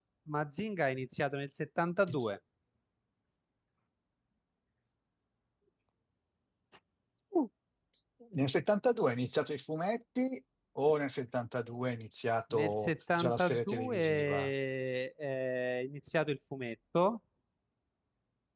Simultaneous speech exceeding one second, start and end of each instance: 12.5-14.5

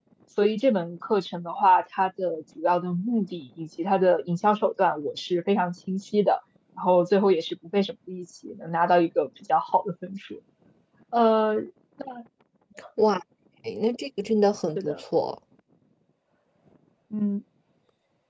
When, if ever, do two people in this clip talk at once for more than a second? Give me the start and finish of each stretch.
none

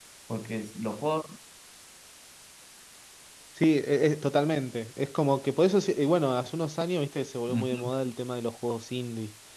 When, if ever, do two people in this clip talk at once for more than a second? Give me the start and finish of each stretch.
none

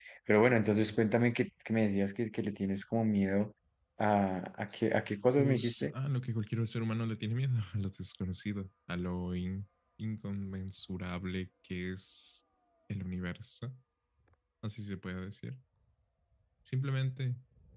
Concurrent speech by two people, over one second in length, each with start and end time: none

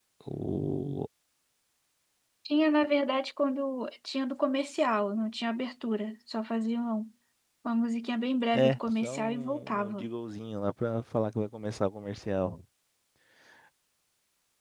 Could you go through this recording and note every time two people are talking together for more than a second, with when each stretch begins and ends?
8.5-10.1

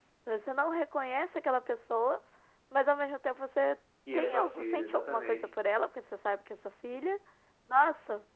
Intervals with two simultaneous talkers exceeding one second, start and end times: 4.1-5.5

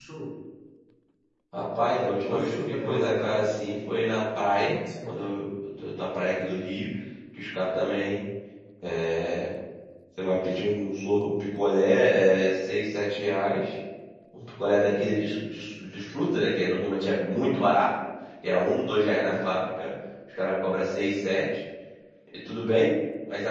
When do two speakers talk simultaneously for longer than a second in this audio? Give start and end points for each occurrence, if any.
2.1-3.3

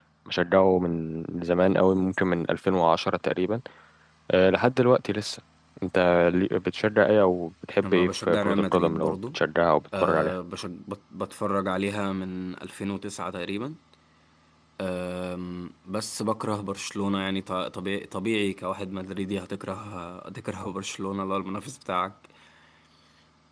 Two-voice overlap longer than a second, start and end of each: 7.8-9.4

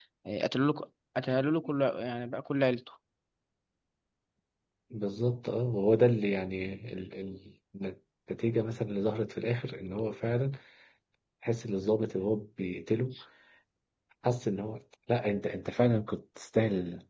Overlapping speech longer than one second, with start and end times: none

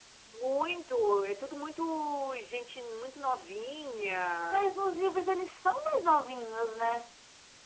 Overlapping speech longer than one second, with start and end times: none

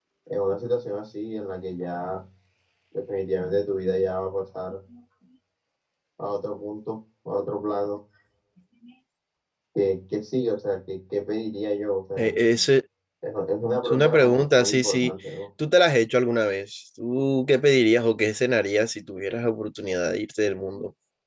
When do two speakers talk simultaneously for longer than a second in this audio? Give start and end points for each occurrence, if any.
13.8-15.1

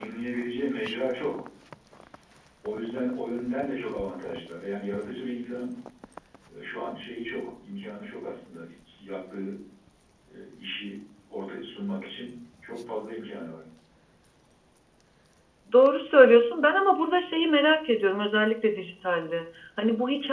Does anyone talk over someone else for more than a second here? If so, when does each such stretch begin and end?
none

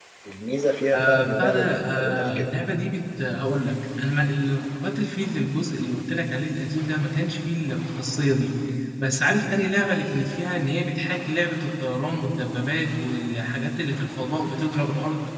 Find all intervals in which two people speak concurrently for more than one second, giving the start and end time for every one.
0.9-2.5

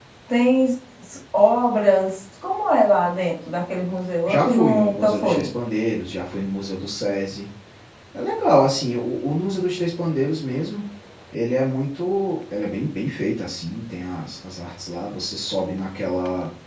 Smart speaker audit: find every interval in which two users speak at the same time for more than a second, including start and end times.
4.2-5.5

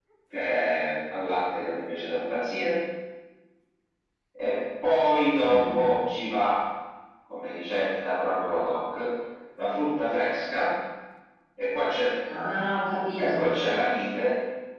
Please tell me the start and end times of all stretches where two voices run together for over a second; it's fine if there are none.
none

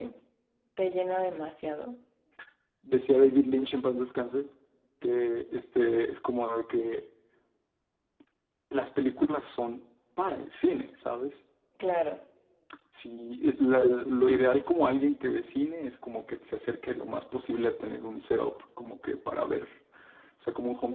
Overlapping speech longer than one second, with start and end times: none

